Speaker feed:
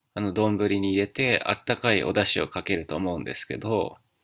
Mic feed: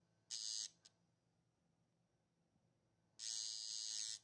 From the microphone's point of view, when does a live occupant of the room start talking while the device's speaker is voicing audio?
none

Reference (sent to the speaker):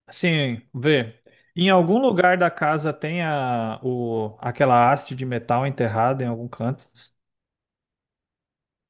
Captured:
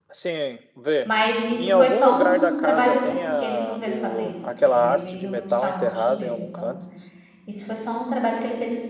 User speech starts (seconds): 1.0 s

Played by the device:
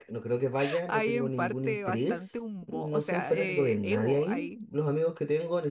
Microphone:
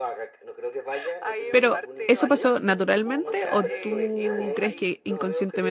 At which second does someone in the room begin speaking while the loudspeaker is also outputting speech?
1.5 s

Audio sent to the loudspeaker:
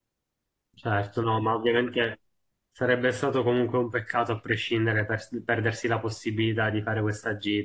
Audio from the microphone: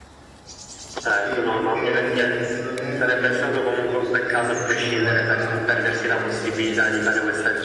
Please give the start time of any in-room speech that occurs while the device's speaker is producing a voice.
1.2 s

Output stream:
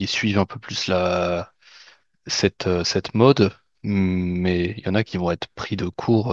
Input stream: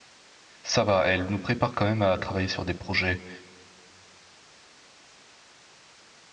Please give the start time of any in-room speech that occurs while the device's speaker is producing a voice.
0.6 s

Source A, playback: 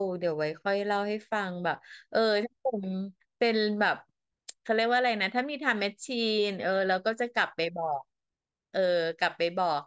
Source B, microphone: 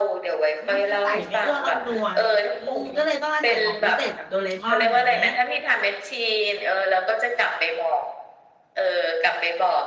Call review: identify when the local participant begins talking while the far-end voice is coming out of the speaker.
0.6 s

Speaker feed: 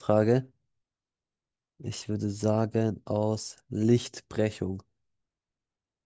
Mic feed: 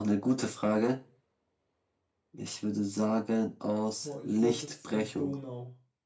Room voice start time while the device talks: 3.9 s

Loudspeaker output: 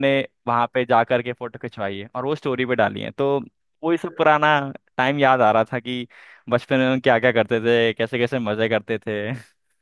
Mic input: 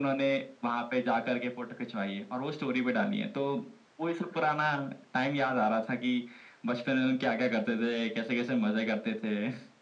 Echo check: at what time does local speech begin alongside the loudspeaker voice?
none

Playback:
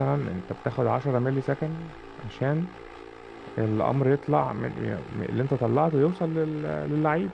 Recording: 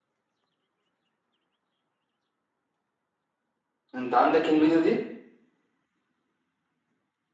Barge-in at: 3.9 s

